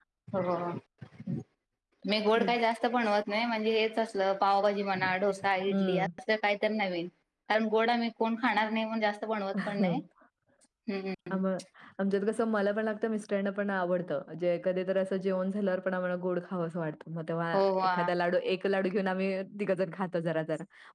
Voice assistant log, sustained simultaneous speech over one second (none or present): none